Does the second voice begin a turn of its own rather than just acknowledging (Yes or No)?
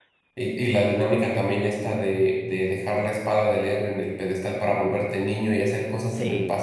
No